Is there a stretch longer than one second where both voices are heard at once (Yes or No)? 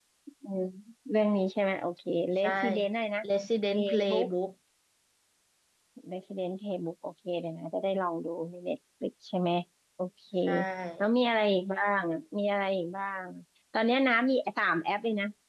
No